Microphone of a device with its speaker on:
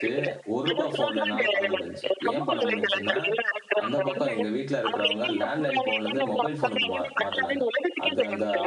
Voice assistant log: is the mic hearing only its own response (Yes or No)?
No